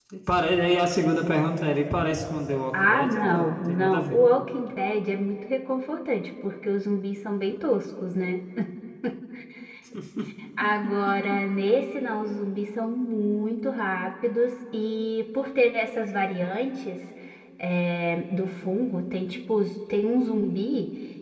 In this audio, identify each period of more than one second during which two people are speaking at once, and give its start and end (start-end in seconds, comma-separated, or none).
2.8-4.2